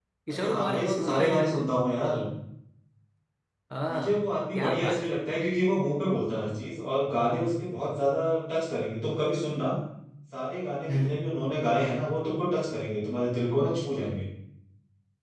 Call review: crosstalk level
present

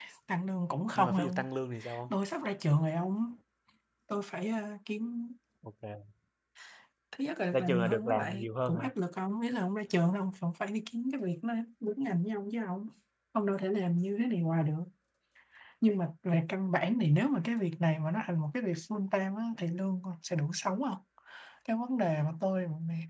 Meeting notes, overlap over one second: present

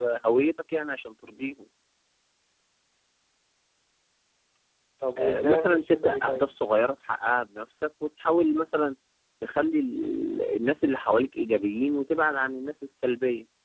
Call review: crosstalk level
present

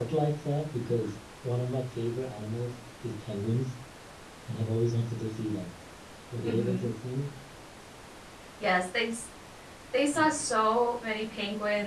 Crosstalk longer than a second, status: none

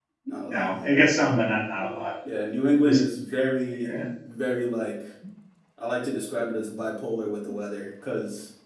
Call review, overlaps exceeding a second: none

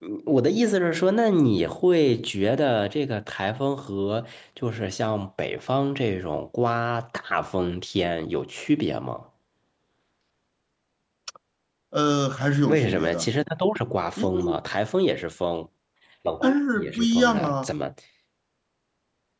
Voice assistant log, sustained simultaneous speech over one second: present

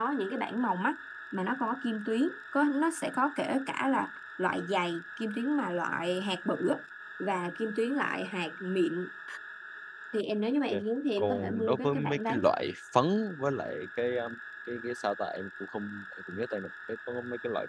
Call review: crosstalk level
present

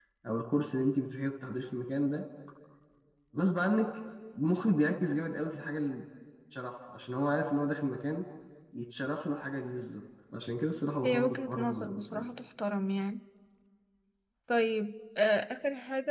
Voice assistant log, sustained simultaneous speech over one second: present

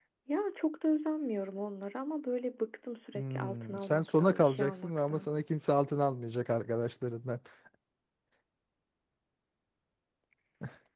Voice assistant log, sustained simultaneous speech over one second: present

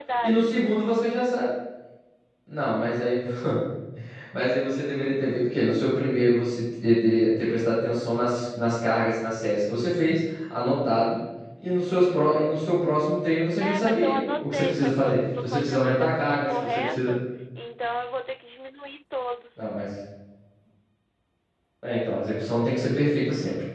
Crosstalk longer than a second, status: present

